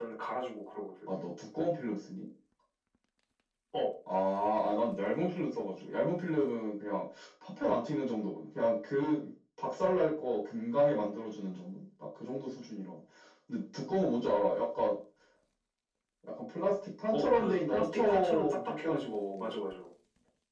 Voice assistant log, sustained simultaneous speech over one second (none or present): present